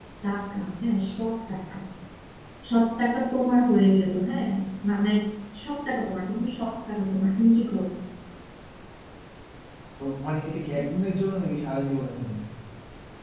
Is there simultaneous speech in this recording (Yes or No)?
No